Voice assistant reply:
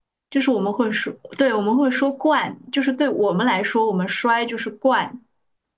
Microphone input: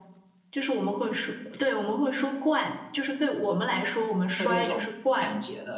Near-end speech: present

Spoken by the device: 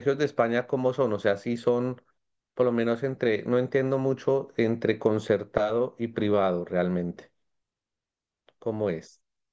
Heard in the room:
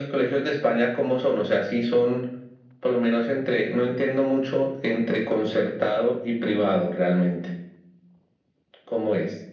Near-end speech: none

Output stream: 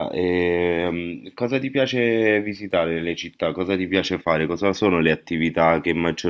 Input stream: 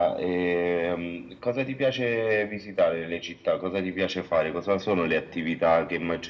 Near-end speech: none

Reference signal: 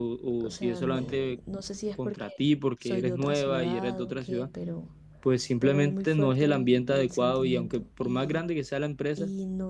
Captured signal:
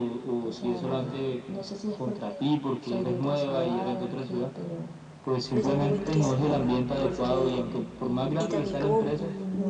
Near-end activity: present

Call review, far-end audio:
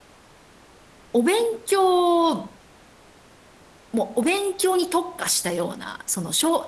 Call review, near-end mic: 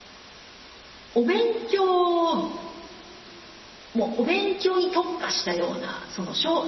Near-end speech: none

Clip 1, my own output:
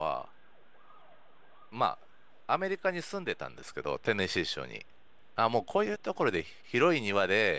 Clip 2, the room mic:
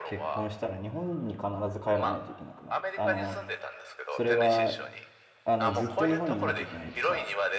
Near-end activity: present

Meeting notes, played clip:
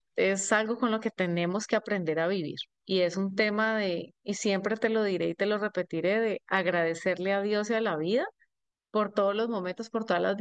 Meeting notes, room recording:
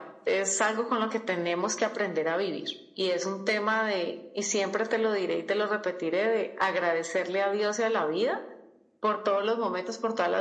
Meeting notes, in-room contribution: none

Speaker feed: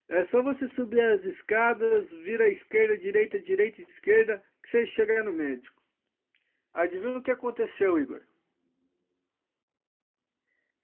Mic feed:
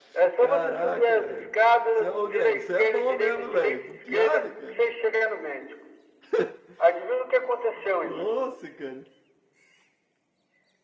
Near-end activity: present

